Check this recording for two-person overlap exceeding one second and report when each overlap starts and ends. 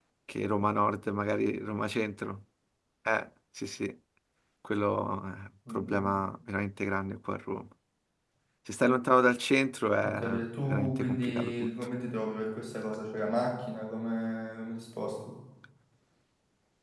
10.0-11.7

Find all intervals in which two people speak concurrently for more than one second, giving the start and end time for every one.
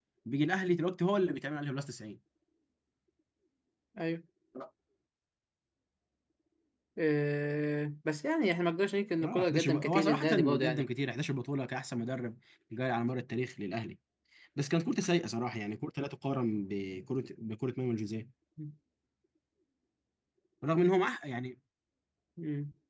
9.2-10.8

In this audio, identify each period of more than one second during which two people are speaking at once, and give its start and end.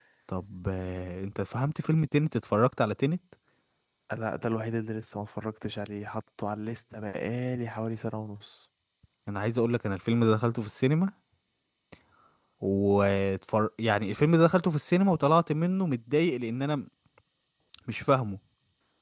none

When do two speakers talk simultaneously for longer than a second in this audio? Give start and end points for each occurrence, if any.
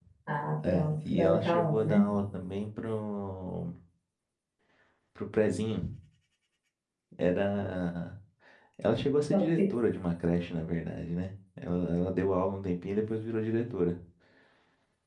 0.6-2.1

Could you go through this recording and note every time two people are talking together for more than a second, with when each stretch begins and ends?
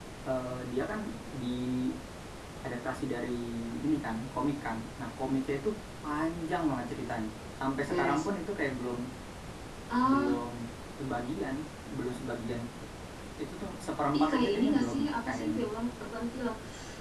14.2-15.6

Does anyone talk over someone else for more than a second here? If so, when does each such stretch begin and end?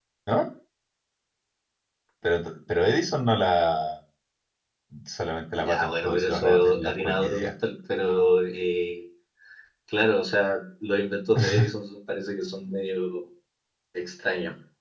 5.5-7.5

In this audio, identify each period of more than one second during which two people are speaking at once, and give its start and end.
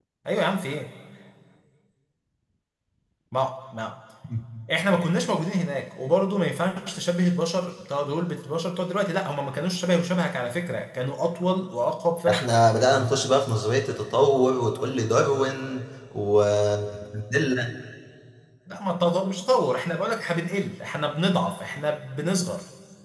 none

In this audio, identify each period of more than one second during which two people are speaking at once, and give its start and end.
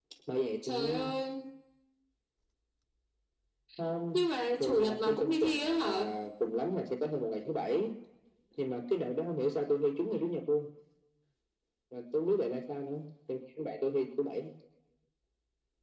4.6-6.0

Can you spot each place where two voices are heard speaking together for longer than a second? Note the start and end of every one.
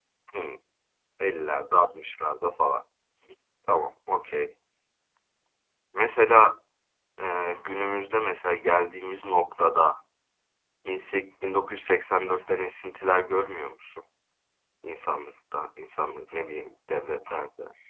none

